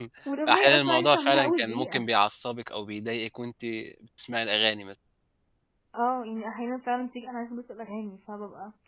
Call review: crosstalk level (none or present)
present